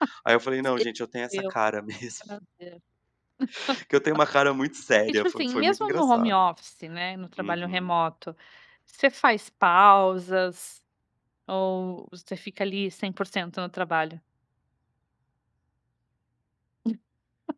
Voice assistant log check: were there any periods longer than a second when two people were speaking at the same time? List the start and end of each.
5.1-6.3

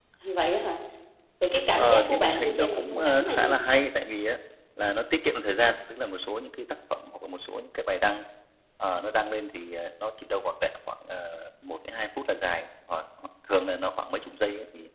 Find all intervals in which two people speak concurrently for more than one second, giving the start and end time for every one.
1.8-3.6

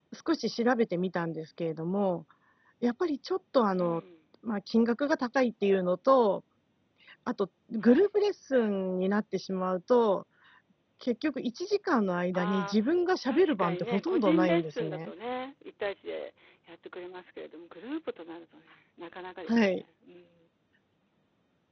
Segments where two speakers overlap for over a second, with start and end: 13.2-15.1

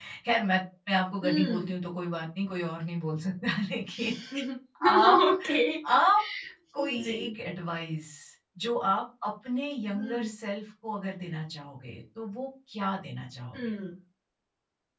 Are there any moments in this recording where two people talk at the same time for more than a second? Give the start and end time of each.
none

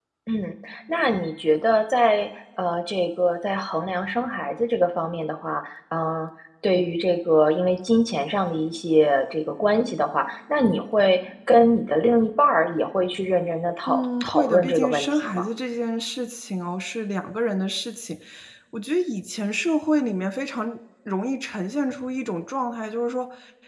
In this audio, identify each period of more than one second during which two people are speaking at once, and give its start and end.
13.9-15.4

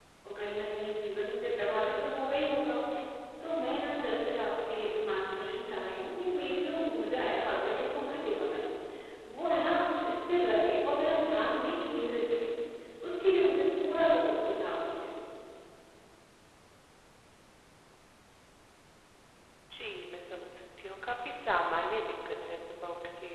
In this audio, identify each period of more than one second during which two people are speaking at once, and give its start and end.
none

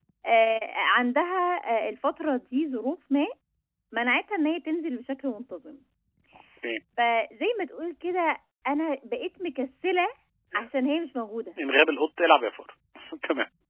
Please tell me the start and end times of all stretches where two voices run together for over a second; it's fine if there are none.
none

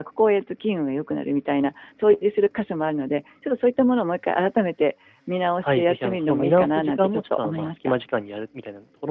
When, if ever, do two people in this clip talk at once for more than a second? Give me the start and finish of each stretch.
5.6-7.9

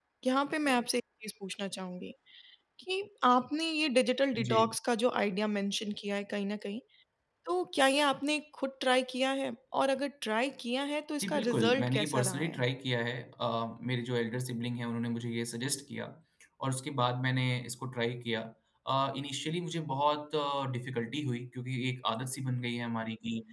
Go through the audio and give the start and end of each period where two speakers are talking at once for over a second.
11.2-12.6

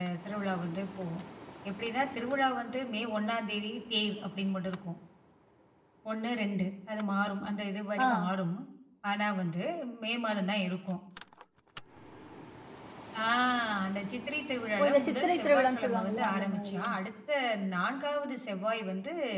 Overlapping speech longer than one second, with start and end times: 14.8-16.8

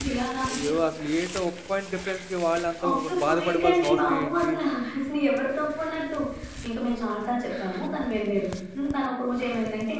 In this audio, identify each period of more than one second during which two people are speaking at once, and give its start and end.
2.9-4.5

